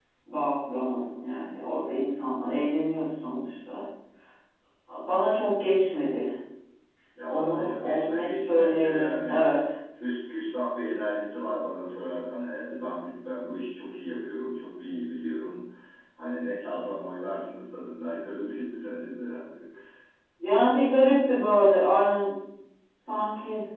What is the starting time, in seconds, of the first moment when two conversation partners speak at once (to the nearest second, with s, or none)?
7 s